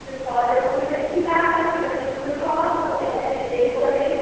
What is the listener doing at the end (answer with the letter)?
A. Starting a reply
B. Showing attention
A